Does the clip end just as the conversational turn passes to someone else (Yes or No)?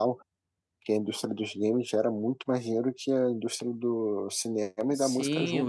Yes